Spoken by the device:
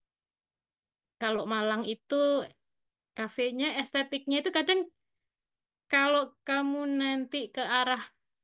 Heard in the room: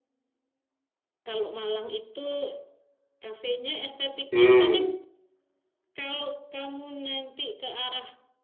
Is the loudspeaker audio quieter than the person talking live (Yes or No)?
Yes